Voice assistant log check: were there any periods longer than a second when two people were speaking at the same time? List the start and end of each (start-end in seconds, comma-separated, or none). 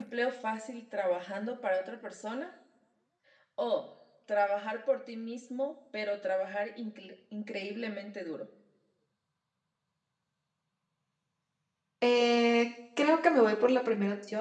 none